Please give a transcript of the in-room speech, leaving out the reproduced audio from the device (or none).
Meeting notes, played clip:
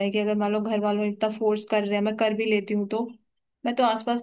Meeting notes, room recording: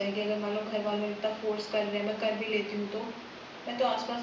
none